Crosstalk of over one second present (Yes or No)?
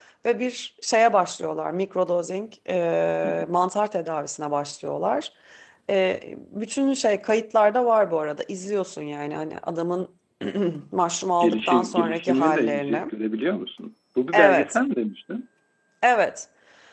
Yes